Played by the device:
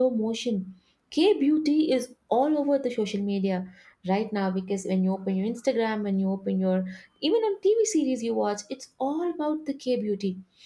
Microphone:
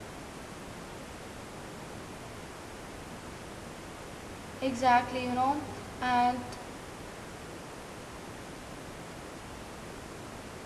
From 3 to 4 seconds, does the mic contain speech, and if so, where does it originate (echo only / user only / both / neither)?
neither